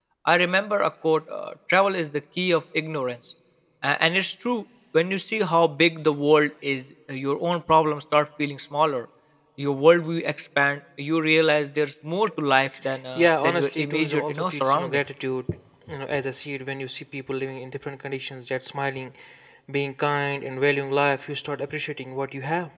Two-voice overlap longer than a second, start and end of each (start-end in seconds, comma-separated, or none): 13.2-15.0